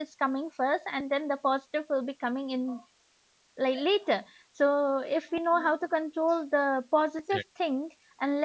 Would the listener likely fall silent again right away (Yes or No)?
Yes